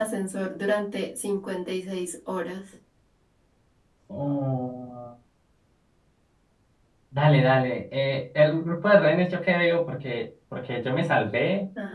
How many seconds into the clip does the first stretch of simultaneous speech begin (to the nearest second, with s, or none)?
none